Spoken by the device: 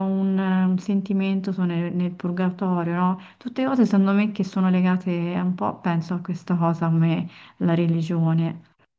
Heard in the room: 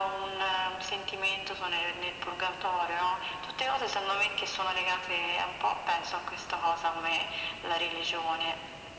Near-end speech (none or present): none